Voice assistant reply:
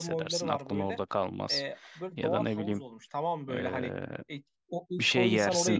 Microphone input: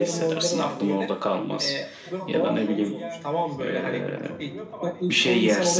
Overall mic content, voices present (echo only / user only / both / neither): both